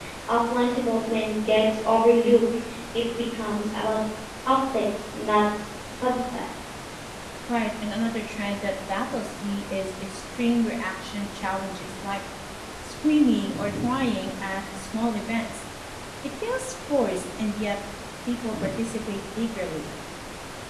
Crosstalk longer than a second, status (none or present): none